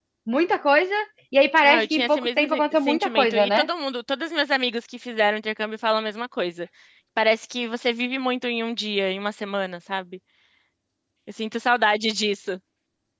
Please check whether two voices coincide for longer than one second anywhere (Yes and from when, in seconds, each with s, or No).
Yes, from 1.6 s